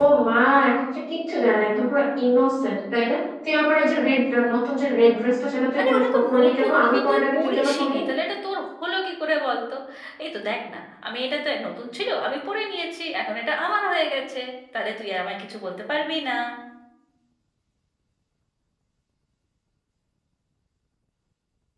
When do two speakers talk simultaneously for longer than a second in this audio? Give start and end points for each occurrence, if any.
5.8-8.0

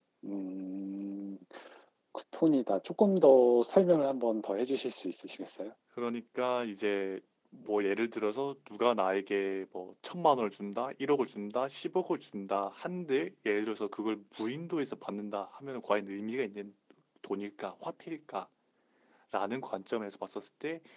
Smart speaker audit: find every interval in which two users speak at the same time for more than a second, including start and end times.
none

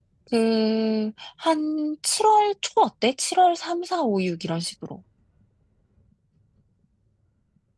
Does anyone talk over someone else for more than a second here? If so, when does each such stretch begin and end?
none

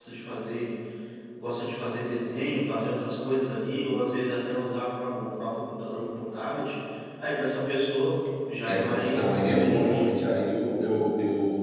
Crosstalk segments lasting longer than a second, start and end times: 8.7-10.0

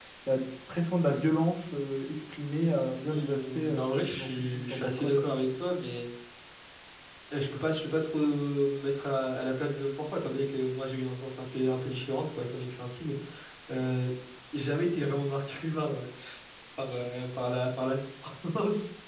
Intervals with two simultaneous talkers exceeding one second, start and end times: 3.1-5.3

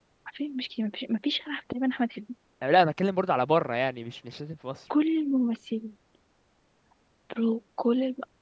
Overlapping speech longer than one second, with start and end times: none

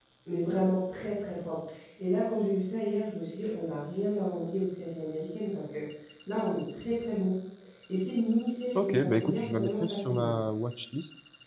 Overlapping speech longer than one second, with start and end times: 8.8-10.3

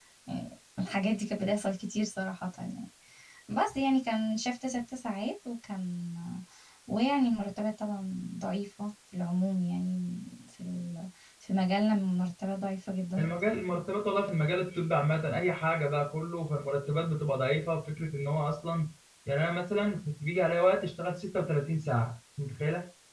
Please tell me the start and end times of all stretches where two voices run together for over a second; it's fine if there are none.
none

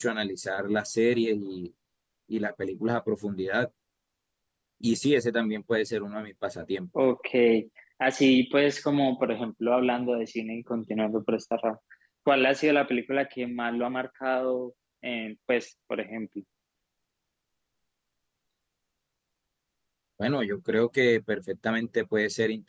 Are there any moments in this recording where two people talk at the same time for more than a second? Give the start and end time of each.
none

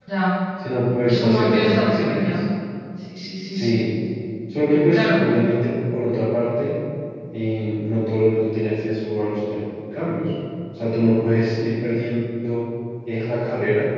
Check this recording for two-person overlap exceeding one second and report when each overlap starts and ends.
1.1-2.4

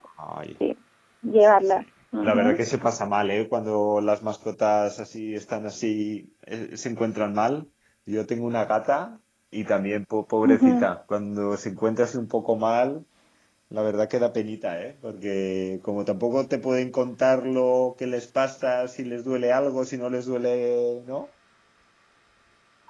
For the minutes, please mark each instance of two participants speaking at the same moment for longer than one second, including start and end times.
none

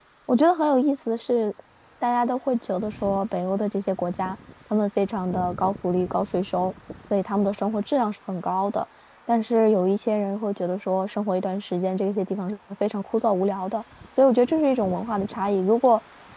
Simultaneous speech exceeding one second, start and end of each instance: none

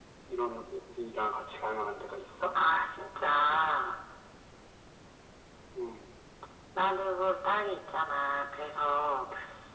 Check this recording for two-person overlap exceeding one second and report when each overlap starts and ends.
none

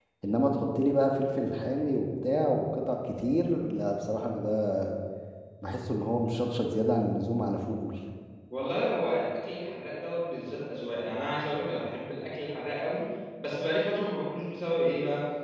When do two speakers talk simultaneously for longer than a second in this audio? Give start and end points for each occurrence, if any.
none

